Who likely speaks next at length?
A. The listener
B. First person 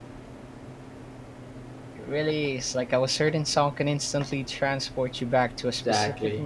A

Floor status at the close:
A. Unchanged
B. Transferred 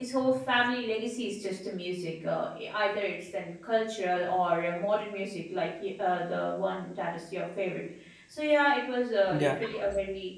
A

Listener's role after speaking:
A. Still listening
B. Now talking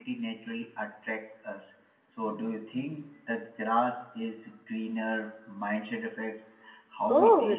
B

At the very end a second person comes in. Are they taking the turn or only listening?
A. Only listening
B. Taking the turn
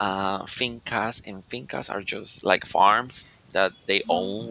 A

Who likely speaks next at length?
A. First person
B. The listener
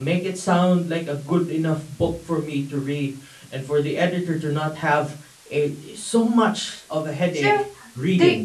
B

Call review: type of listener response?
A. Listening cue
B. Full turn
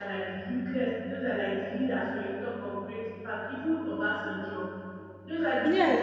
B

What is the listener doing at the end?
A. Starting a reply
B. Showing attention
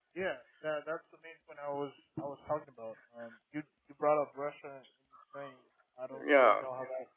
B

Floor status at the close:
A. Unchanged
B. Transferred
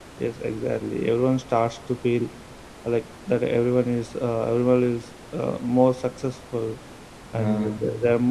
A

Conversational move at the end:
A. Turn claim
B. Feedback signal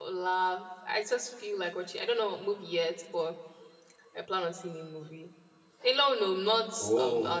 B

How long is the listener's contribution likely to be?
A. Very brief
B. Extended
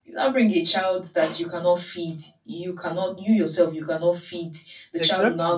A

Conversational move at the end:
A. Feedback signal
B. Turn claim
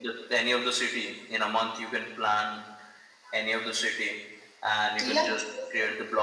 A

